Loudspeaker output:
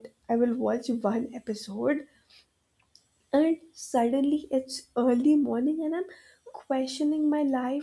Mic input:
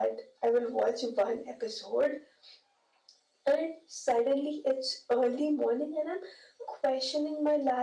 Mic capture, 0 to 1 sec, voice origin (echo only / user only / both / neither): echo only